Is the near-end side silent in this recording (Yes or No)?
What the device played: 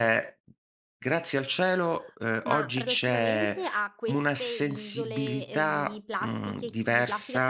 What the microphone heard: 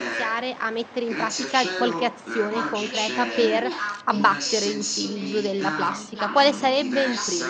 No